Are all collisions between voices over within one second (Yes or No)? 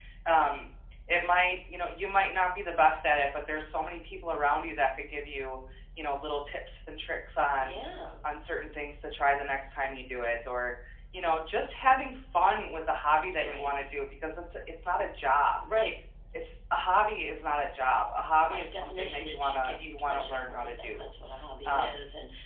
No